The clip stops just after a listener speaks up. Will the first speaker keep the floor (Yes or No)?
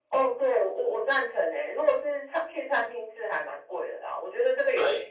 Yes